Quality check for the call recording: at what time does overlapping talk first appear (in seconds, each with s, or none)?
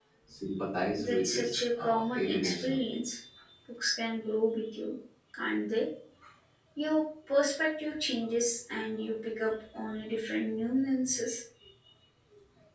1.0 s